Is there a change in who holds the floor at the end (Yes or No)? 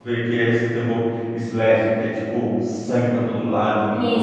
No